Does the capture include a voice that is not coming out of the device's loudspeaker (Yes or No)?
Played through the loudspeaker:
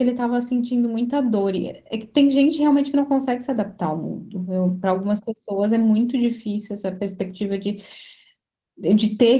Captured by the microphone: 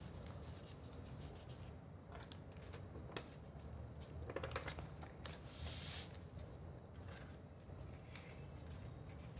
No